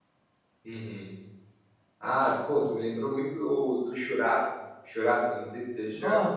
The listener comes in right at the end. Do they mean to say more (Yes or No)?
Yes